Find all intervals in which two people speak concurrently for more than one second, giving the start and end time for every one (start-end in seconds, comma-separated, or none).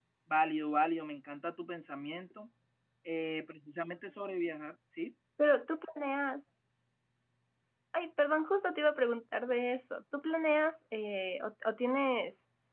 none